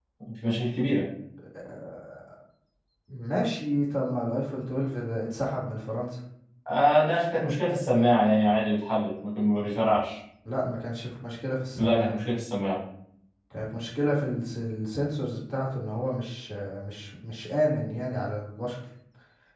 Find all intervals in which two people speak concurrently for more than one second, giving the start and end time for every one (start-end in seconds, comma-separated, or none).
none